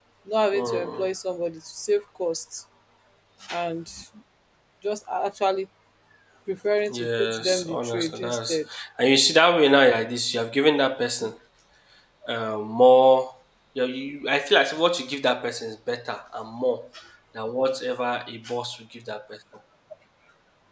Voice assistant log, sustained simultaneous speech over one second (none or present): present